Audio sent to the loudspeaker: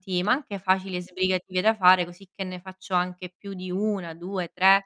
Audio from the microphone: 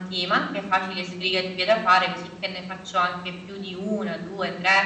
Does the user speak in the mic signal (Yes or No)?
No